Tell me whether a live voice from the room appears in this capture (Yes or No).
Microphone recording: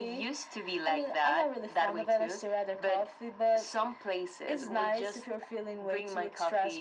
No